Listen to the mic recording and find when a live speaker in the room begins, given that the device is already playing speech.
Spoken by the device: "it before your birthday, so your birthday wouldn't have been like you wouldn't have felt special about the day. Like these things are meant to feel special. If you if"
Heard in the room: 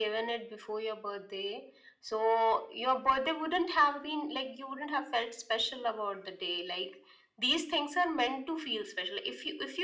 none

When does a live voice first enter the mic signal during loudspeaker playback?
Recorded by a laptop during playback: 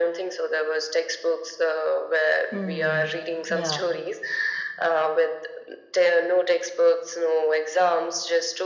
2 s

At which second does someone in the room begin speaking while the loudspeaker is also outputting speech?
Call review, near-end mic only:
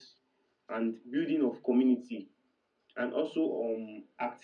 none

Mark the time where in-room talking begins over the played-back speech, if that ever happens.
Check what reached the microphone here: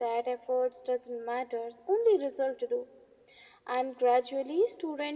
none

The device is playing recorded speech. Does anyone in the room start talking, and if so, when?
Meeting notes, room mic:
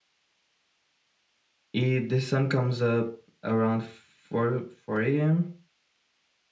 2 s

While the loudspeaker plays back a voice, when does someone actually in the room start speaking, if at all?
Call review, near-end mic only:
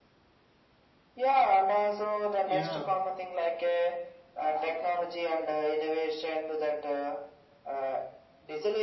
2 s

